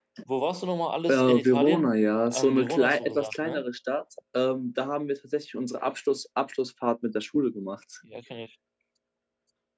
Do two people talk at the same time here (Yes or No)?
Yes